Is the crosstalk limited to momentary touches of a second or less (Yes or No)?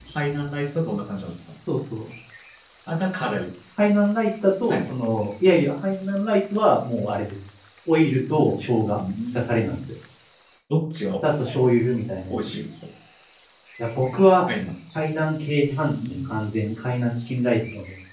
Yes